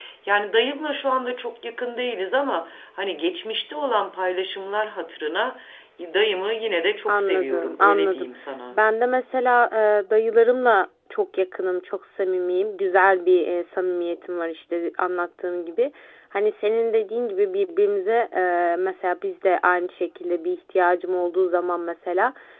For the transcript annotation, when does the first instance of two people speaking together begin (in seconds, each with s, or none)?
7.1 s